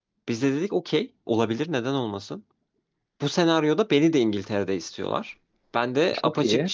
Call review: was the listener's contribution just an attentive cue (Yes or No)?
Yes